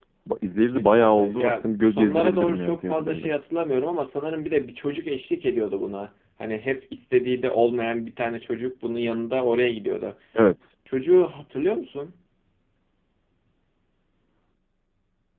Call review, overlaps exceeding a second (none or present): present